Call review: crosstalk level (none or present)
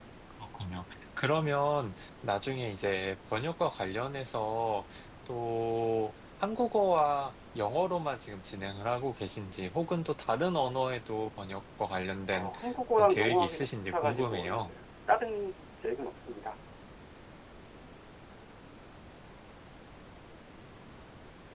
present